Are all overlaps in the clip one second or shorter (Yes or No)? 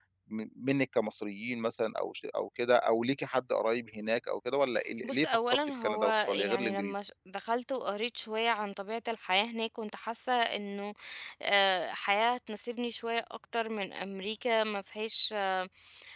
No